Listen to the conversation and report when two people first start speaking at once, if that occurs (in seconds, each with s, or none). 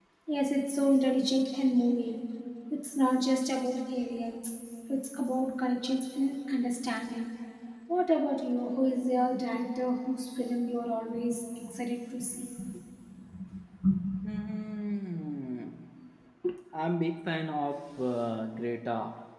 none